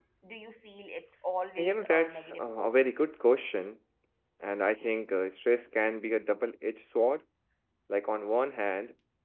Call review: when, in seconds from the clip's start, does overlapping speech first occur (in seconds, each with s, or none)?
1.6 s